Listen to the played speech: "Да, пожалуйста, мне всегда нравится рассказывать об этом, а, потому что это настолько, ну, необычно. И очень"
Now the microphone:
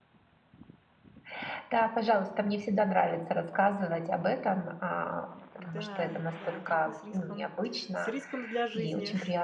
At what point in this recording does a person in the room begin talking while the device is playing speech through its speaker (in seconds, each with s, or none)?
5.6 s